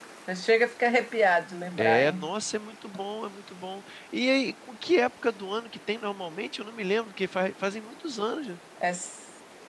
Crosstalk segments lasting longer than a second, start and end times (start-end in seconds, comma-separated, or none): none